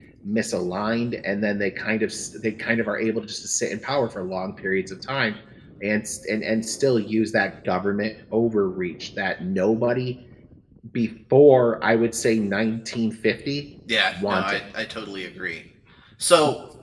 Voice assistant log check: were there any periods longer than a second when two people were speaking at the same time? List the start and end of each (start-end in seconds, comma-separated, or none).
none